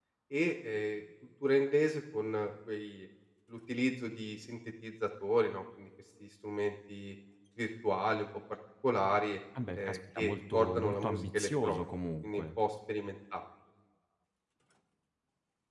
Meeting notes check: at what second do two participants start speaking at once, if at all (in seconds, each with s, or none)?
9.6 s